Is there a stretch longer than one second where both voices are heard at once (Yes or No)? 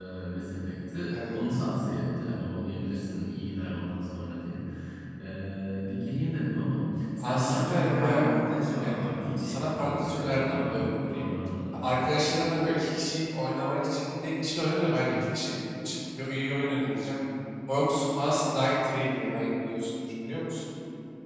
Yes